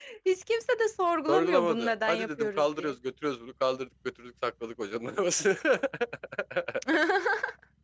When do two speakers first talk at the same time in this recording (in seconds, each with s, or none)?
1.3 s